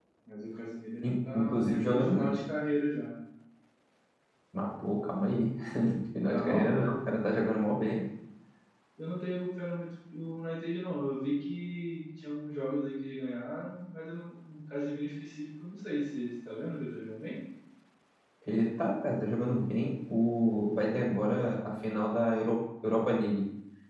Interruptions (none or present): present